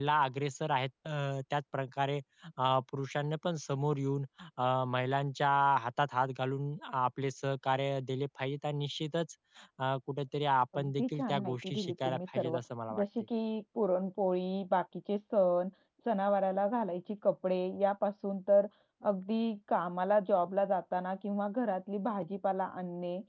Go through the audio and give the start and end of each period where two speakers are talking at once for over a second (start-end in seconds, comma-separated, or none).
10.8-12.6